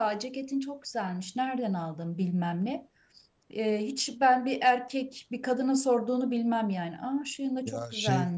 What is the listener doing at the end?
taking over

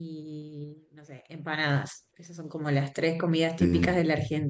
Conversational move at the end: listening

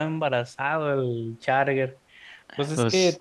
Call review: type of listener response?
listening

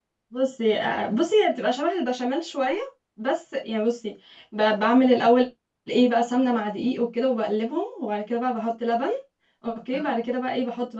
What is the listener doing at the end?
listening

